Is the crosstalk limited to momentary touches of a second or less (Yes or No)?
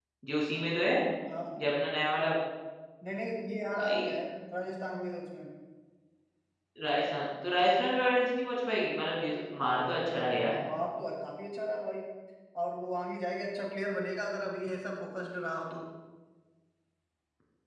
Yes